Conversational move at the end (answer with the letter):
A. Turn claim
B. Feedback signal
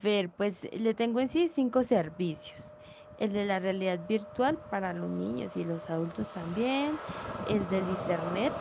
B